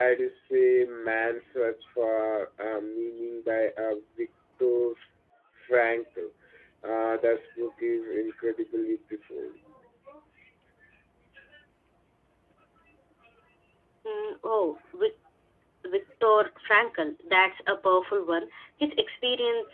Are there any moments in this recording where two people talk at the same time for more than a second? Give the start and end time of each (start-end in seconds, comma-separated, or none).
none